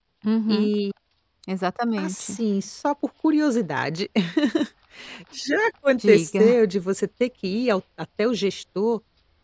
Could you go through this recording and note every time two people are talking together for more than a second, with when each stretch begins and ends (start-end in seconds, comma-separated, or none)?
none